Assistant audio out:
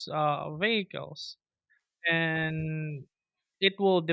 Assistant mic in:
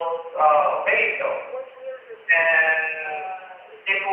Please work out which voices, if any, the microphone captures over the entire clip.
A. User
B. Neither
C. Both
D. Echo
C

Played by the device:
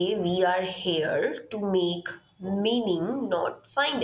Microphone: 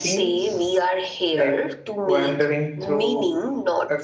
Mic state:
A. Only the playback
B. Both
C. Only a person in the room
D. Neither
B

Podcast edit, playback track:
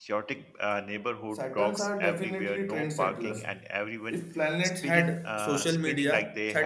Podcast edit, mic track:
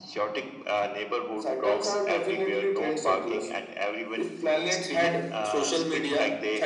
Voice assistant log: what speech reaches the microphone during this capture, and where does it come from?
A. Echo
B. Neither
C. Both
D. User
A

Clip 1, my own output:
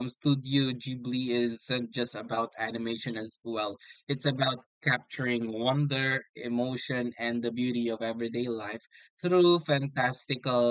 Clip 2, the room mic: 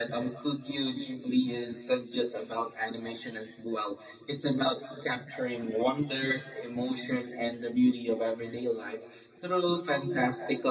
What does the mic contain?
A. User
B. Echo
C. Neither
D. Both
B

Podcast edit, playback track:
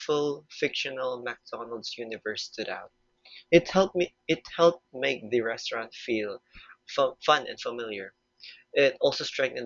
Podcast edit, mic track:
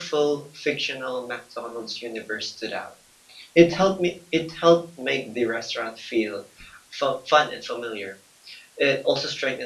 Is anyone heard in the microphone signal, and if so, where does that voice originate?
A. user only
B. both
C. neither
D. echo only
D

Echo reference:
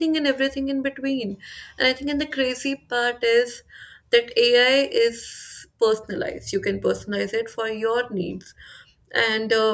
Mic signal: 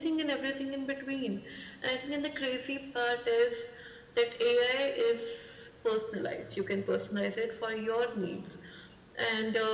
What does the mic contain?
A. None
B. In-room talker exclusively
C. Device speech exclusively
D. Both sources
C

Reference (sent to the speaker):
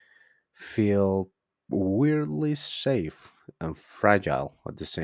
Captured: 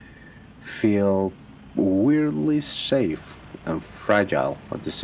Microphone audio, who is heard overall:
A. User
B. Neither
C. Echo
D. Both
C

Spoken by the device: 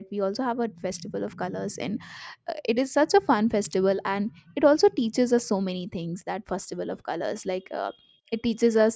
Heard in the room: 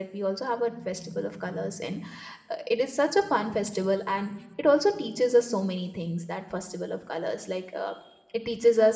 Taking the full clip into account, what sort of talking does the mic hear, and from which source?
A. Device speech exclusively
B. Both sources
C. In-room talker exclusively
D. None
A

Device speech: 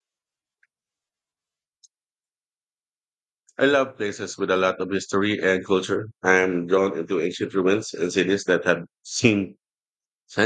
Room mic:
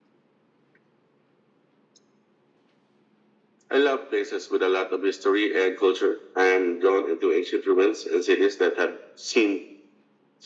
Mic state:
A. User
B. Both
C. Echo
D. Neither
C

